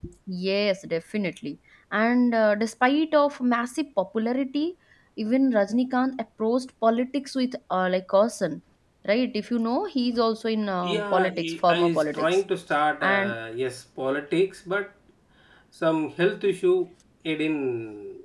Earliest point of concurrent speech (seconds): 11 s

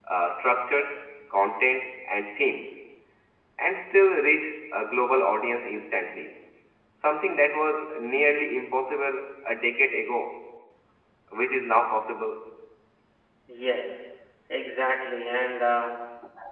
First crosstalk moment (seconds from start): none

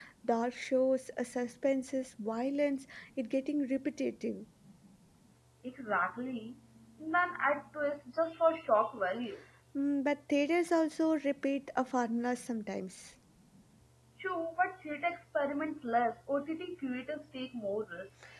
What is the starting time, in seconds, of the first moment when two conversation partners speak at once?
none

